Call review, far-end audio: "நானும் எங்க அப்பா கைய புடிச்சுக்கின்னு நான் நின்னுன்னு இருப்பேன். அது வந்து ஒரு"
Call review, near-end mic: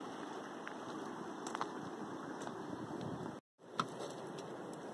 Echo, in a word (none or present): none